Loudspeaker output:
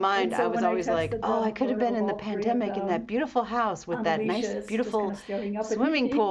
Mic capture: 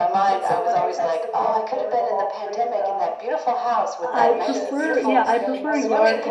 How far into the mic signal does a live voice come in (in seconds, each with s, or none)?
4.1 s